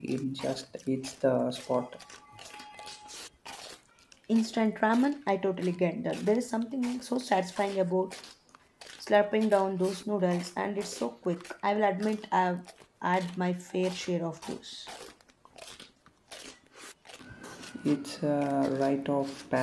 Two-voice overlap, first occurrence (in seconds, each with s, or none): none